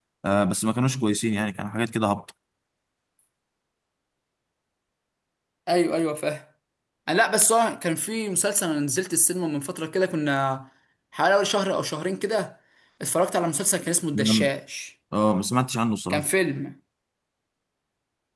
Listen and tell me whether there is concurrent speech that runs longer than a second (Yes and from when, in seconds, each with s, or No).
No